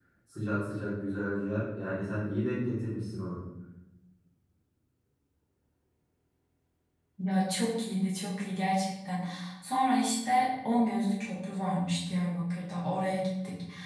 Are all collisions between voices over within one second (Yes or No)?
Yes